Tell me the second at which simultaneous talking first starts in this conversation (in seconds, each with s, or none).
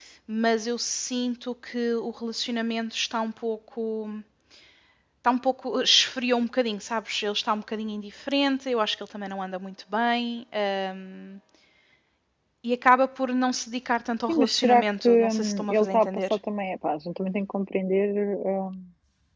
14.3 s